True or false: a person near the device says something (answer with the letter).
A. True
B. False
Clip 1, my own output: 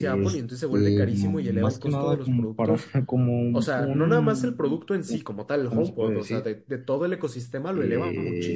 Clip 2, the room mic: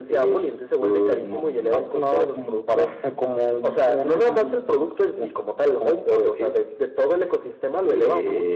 B